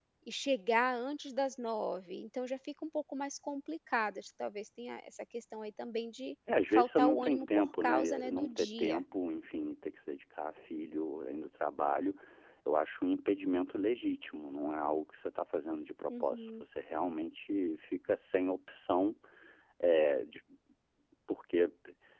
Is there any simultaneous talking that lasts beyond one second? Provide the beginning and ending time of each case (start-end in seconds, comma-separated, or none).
6.7-9.0